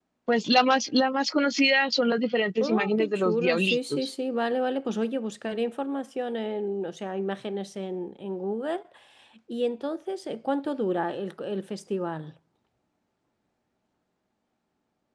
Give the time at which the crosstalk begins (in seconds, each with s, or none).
2.6 s